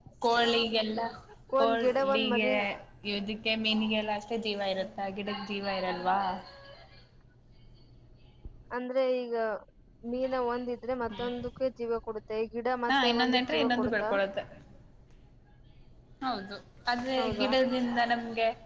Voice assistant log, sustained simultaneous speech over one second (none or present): present